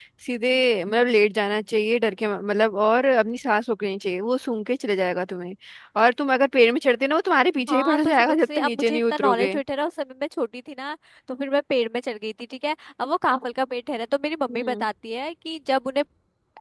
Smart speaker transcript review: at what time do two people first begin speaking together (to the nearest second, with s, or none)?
8 s